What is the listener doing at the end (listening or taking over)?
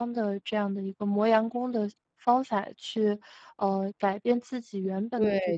taking over